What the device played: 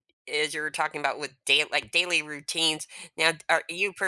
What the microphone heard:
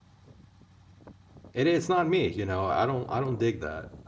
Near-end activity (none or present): present